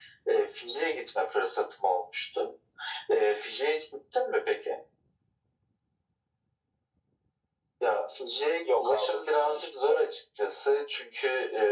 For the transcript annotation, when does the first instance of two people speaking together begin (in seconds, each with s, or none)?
8.6 s